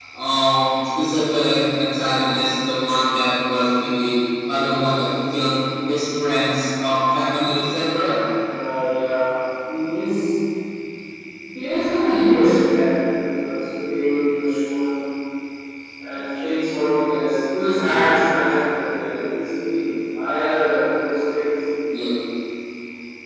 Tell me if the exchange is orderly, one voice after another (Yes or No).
Yes